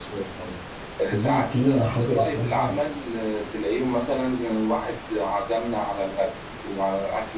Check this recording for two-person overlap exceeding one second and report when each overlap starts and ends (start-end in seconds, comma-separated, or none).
1.1-2.7